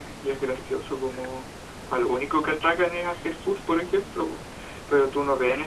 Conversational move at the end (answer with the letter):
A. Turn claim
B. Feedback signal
B